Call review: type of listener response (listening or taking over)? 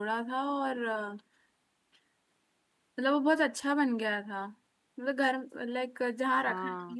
listening